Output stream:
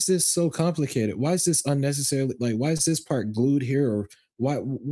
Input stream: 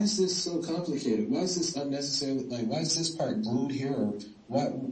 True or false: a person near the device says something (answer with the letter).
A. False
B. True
A